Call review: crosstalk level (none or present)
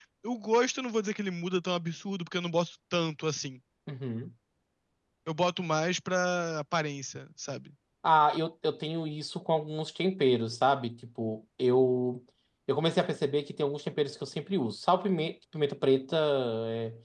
none